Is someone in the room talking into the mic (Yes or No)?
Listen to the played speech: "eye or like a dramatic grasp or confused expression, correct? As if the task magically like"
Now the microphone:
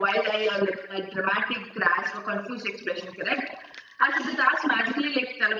No